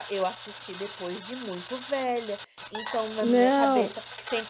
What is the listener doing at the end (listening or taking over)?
listening